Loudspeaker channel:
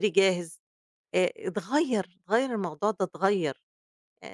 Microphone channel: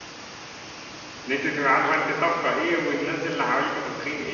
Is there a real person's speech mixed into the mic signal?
Yes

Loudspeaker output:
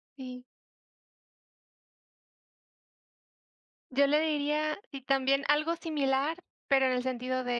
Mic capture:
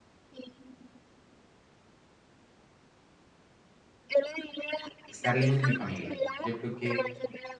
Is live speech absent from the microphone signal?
No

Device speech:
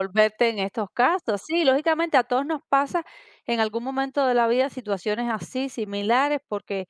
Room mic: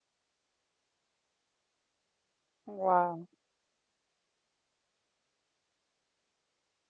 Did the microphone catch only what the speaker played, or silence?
No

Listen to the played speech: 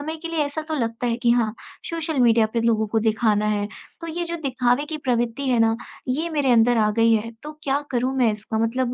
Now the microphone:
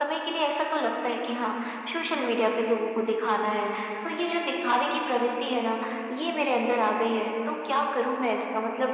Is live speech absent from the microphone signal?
Yes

